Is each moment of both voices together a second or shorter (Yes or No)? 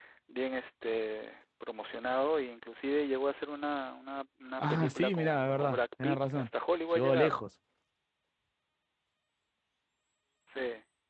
No